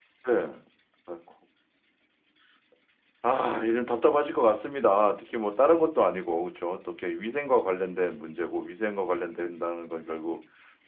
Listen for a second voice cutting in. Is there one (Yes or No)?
No